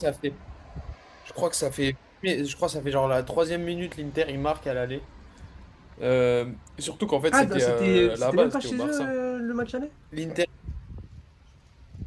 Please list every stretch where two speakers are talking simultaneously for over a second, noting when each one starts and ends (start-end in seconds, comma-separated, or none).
7.3-9.1